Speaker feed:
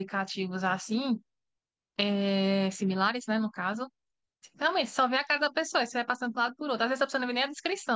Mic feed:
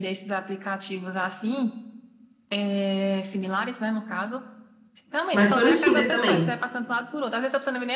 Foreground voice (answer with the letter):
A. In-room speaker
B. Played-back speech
A